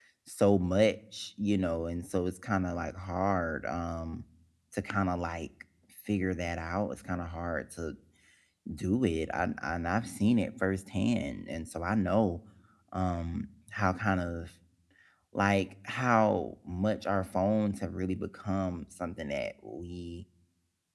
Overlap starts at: none

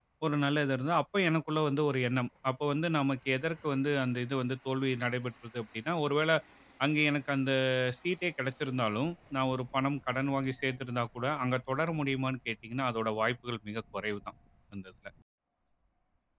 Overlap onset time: none

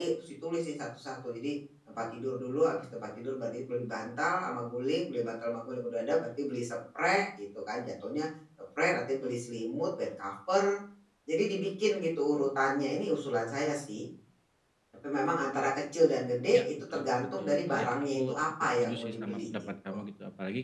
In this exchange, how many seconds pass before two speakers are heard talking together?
16.5 s

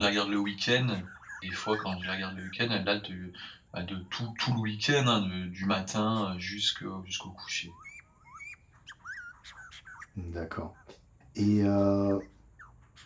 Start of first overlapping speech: none

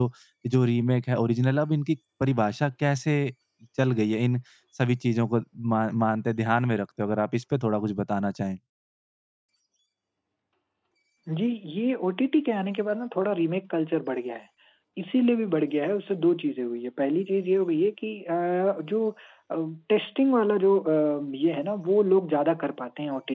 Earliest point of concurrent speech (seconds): none

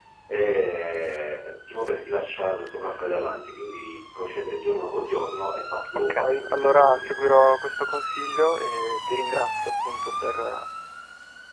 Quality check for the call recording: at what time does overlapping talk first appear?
6.0 s

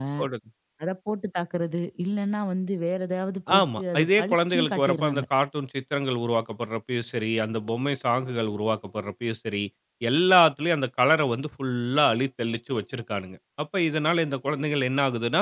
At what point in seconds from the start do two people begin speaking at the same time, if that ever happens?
3.5 s

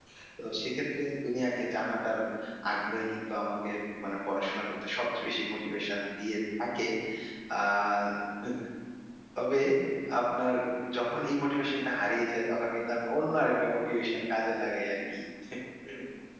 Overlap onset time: none

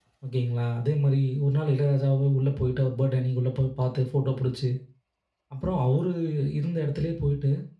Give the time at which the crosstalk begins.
none

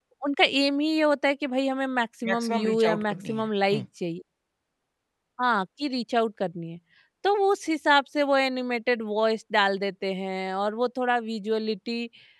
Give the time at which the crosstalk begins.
2.2 s

